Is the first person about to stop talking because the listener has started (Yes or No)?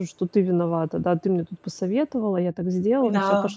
No